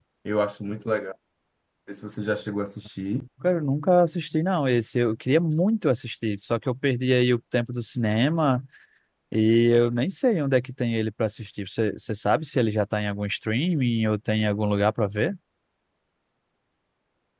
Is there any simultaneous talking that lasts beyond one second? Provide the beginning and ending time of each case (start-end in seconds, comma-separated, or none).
none